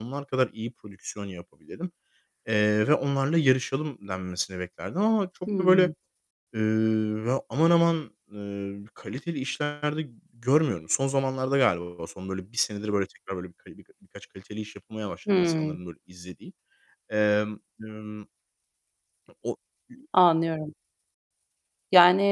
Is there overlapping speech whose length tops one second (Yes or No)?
No